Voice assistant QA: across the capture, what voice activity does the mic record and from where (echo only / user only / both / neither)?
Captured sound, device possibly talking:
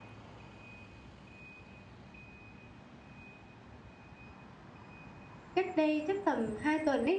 user only